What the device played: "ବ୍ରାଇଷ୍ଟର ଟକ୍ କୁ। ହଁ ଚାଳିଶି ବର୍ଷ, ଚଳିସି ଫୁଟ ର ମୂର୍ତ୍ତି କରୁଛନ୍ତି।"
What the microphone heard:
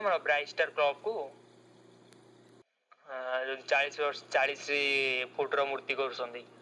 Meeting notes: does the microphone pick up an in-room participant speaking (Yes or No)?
No